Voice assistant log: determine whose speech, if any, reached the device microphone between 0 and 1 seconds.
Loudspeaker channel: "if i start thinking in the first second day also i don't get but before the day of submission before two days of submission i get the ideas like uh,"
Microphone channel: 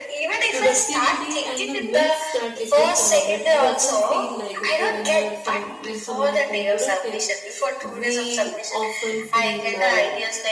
both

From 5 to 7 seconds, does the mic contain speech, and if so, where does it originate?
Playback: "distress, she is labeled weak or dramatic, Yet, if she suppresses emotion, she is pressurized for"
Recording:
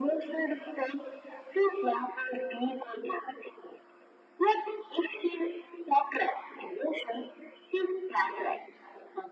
echo only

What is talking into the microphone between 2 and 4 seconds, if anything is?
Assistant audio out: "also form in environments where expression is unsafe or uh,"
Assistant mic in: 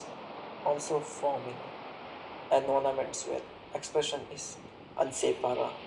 echo only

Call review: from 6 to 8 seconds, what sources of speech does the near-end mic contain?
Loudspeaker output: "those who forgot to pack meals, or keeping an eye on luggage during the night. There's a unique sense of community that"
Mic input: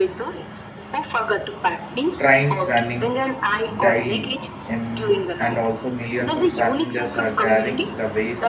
both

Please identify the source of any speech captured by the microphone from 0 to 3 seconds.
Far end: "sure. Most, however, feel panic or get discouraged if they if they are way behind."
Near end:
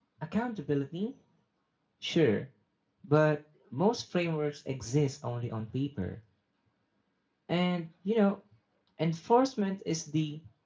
user only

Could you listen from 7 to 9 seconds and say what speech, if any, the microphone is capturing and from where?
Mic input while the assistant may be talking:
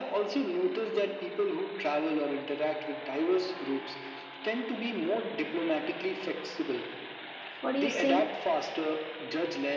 both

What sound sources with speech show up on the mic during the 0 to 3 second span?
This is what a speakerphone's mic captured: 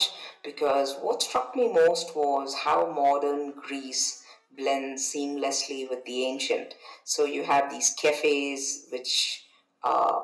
echo only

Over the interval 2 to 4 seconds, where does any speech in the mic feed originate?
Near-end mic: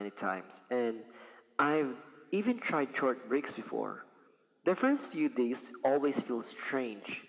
echo only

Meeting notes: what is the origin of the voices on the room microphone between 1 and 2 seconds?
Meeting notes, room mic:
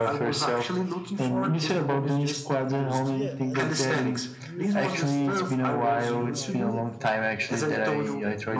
echo only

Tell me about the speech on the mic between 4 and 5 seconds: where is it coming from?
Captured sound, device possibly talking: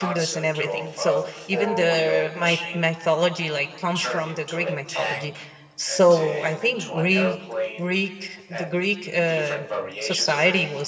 both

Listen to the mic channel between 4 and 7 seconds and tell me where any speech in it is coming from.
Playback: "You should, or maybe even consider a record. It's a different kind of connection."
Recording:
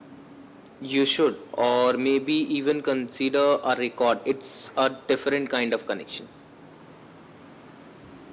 echo only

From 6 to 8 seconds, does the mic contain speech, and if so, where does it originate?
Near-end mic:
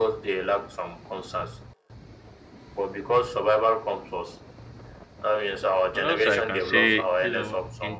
both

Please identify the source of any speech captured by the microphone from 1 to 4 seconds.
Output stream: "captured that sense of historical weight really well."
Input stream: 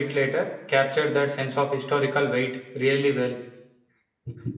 echo only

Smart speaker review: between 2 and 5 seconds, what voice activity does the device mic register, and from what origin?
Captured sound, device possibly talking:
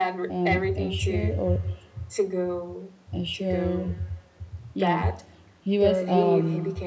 both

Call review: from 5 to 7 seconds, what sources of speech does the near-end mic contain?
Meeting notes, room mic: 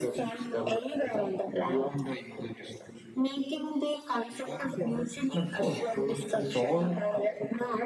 both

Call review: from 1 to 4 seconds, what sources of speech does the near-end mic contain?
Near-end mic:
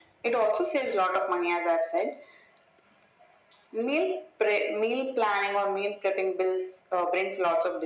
echo only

